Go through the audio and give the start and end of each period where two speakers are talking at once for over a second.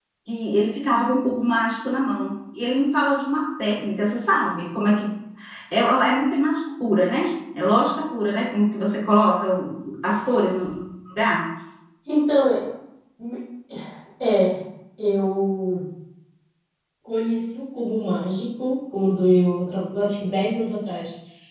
none

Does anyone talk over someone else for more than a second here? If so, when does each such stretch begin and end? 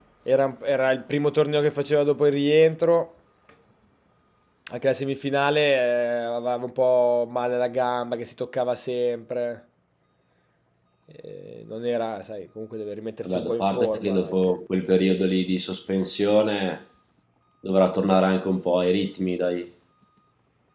13.2-14.5

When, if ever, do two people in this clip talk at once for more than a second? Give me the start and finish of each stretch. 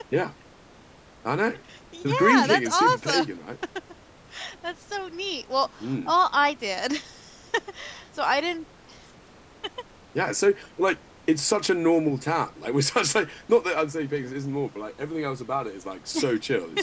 2.0-3.2

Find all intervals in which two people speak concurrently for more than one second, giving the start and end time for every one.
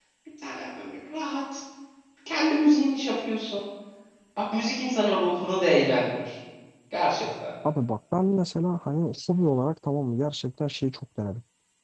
none

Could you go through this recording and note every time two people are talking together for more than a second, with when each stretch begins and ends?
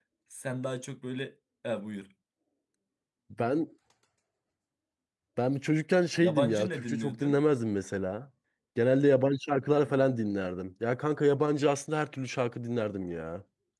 6.2-7.4

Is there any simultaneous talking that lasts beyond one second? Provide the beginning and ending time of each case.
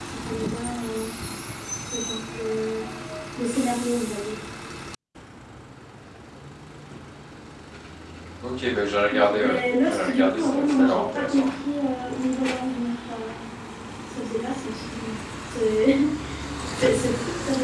9.1-11.5

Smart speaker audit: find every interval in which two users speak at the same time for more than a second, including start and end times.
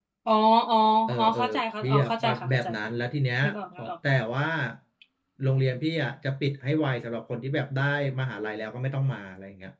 1.2-2.7

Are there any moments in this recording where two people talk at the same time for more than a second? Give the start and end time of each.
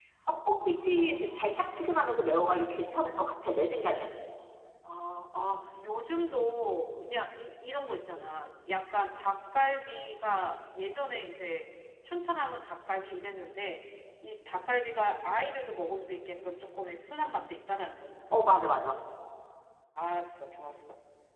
0.6-1.8

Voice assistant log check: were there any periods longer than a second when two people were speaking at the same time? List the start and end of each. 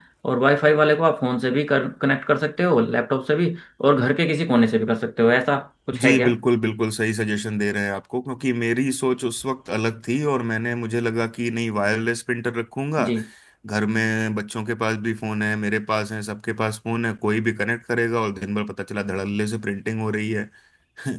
none

